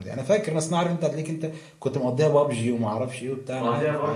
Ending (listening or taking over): taking over